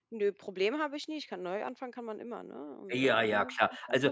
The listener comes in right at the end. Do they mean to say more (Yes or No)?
Yes